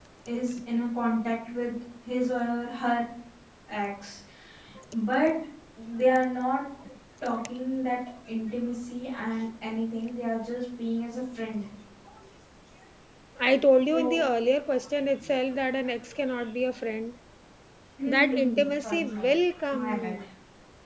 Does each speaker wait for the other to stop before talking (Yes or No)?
No